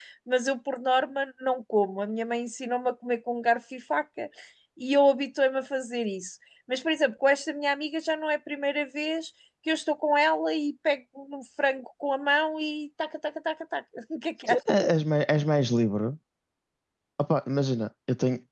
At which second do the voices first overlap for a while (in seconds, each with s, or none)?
none